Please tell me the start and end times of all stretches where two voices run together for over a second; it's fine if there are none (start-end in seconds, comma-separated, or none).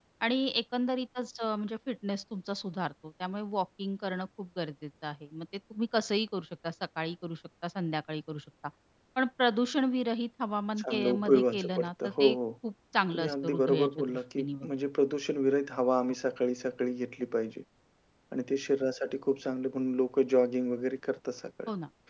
10.8-12.4, 13.1-14.7